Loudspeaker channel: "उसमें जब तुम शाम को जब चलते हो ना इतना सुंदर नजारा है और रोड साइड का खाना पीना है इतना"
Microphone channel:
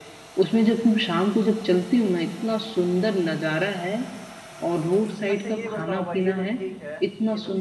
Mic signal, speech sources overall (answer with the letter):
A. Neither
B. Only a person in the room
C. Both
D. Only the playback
C